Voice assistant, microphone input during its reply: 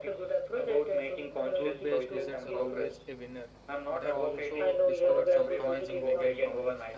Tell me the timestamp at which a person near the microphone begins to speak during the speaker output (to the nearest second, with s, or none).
2 s